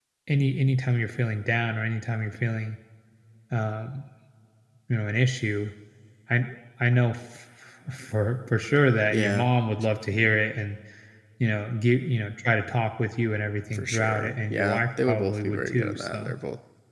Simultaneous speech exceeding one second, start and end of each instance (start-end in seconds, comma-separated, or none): 13.7-16.3